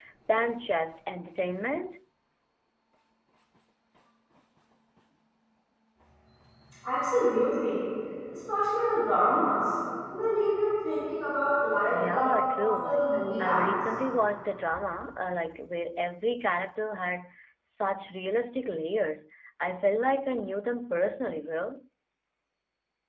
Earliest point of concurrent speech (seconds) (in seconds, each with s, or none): 11.9 s